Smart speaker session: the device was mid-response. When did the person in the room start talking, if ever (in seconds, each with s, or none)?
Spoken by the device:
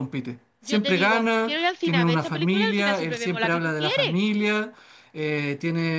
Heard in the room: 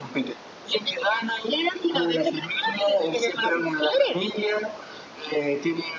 none